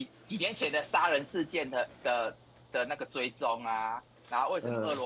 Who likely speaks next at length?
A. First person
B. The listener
A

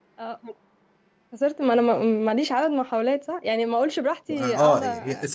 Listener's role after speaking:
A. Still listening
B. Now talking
B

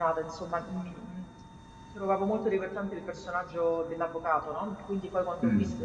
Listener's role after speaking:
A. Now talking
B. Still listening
B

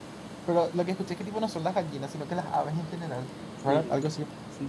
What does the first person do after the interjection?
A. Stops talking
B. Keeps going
A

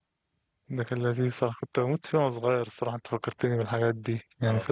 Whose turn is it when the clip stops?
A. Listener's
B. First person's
B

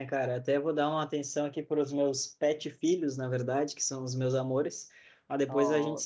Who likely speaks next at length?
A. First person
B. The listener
A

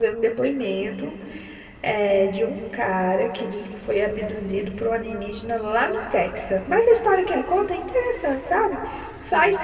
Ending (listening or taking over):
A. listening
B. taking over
A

